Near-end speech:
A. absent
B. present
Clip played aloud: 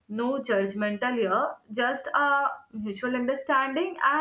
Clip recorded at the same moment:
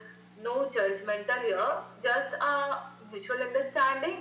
A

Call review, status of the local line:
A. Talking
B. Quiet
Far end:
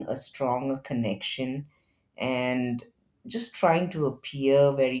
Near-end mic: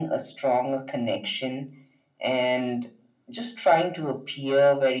B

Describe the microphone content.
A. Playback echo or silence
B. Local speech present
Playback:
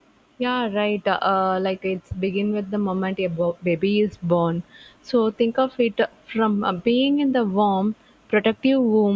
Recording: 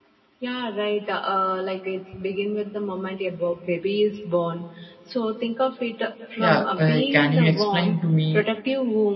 B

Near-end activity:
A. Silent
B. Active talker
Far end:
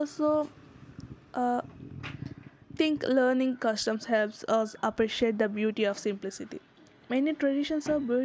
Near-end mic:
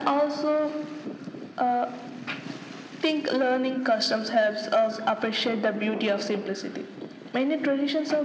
A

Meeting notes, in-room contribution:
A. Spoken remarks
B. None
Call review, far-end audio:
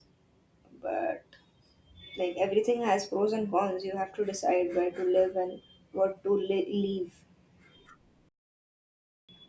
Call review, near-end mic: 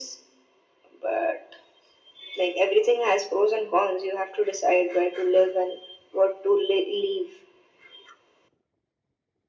B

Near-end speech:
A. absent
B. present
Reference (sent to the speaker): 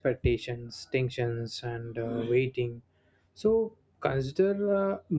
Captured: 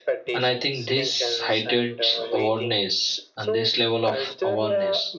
B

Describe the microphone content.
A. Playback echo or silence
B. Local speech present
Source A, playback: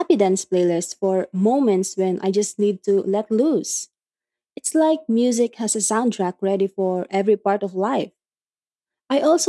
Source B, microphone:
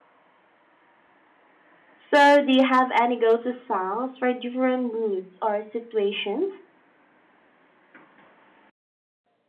B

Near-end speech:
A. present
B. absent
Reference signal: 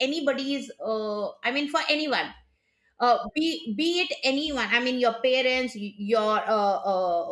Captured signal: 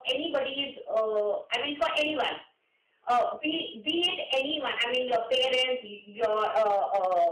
B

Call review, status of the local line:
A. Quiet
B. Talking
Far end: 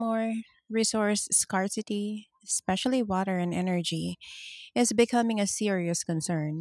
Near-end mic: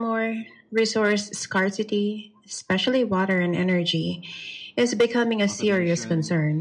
B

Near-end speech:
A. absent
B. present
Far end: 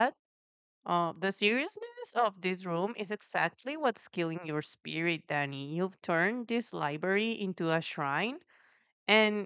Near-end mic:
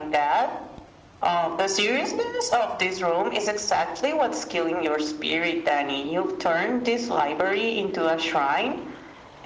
A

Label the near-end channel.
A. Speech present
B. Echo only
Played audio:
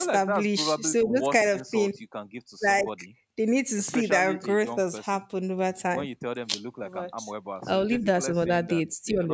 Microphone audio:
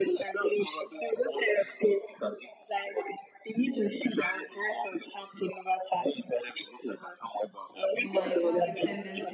A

